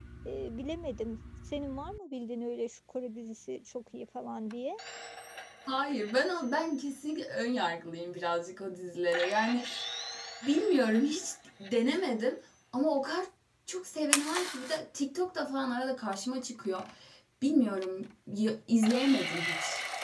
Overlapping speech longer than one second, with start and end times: none

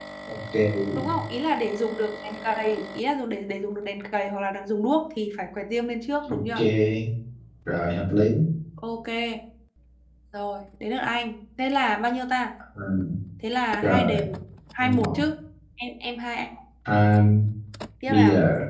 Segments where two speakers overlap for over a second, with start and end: none

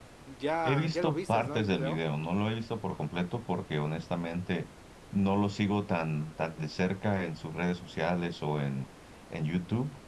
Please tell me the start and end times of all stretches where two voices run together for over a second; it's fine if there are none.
0.6-2.0

